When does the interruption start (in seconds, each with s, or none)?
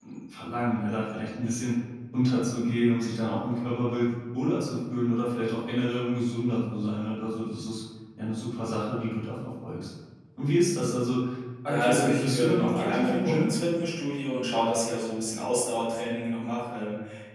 11.7 s